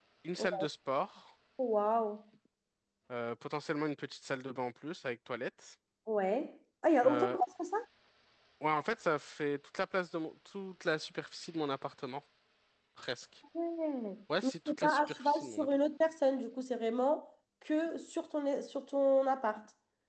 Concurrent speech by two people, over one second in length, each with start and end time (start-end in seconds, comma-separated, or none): 14.4-15.7